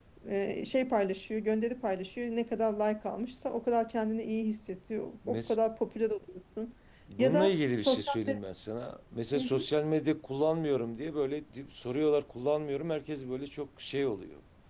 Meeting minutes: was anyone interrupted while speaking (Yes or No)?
Yes